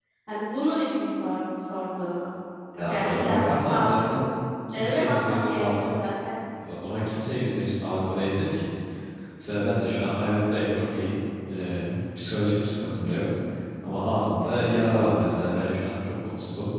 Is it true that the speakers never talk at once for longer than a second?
No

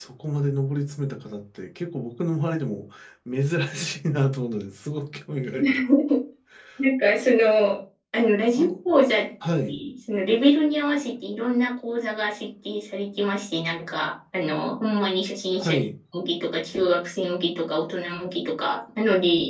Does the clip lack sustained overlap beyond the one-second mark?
Yes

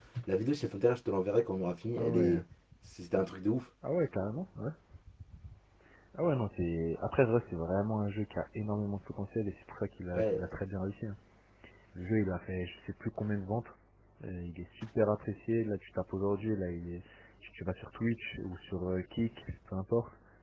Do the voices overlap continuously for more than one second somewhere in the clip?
No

